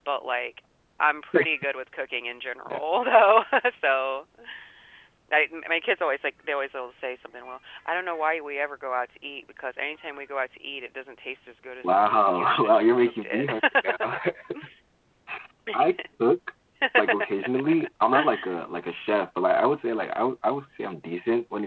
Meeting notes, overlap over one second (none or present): present